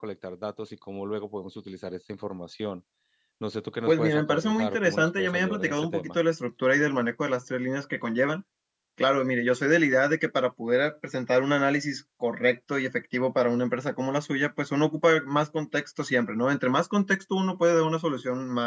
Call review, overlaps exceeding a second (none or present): present